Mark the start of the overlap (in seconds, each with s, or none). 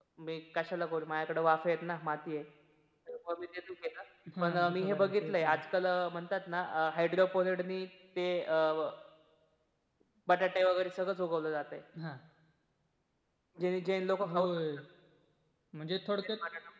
4.4 s